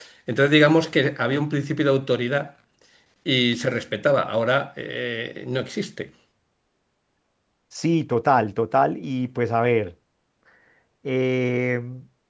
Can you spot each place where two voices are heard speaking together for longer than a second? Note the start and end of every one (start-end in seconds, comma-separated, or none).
none